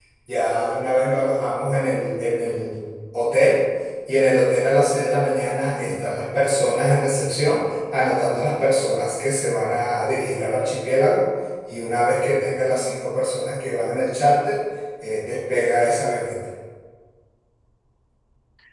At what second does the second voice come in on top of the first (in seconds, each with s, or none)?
none